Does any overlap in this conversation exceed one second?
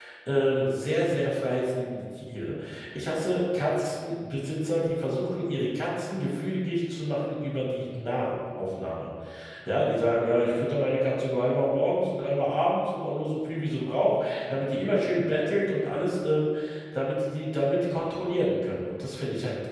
No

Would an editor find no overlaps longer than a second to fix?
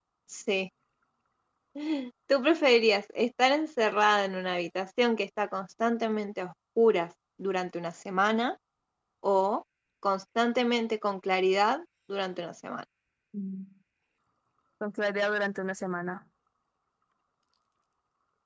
Yes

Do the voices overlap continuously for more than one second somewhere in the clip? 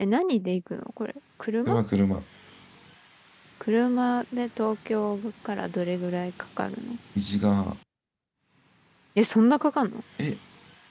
No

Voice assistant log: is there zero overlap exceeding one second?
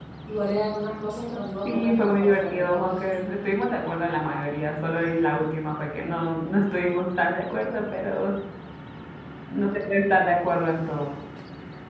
No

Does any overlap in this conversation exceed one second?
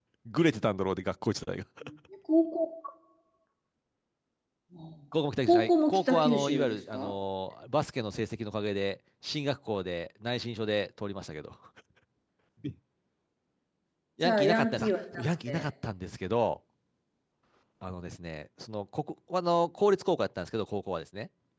Yes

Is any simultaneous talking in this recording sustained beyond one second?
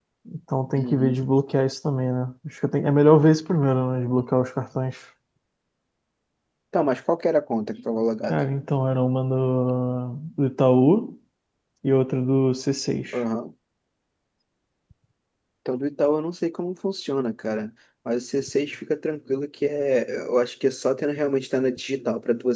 No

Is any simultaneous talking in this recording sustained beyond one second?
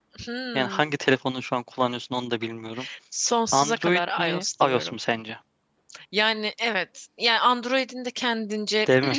Yes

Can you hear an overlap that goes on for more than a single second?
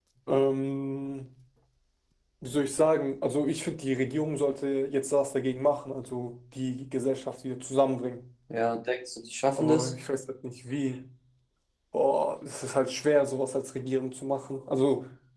No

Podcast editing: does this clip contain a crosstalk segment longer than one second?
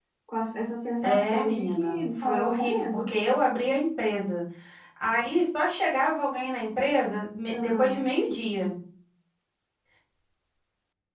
Yes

